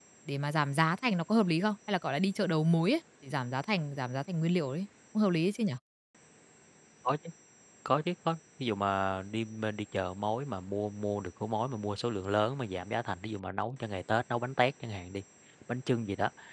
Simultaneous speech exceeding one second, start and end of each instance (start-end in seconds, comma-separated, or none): none